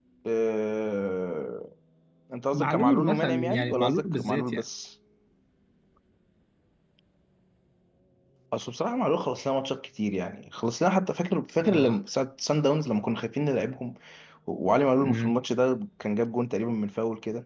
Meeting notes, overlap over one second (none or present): present